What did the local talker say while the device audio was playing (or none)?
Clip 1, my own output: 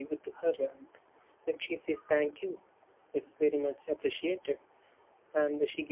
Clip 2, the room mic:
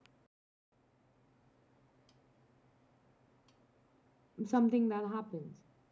something that happens